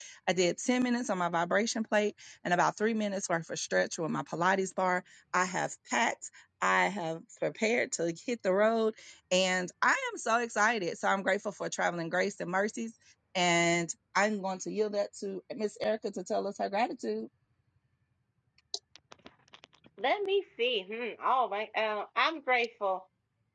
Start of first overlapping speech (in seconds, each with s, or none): none